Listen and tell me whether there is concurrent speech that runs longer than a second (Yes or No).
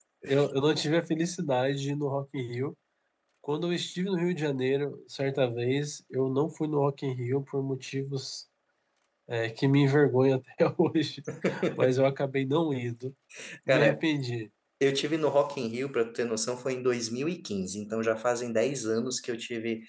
No